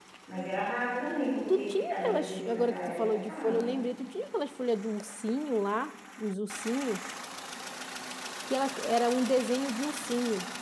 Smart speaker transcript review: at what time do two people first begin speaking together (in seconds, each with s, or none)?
1.5 s